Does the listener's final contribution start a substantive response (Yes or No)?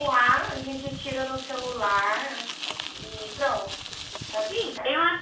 Yes